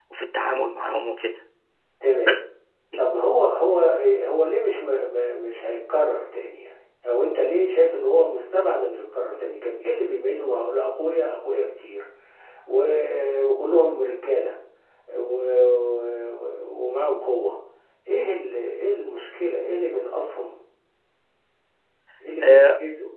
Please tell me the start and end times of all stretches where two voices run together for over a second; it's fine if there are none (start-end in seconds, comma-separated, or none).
none